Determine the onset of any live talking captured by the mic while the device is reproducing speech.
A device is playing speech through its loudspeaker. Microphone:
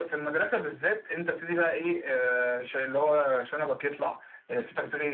none

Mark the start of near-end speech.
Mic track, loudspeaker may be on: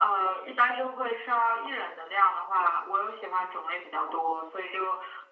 none

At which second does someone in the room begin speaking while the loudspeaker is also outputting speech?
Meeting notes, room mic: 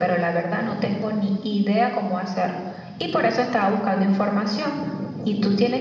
none

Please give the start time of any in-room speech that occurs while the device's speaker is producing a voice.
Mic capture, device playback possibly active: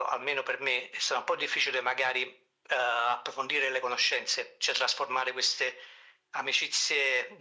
none

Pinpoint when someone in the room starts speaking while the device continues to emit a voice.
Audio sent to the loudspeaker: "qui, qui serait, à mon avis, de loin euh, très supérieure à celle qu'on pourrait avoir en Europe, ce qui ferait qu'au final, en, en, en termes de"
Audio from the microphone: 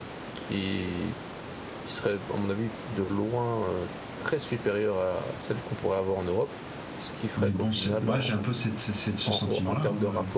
7 s

